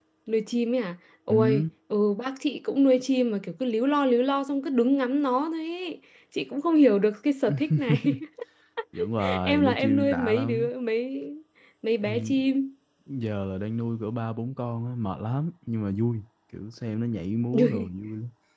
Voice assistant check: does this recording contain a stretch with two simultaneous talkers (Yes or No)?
Yes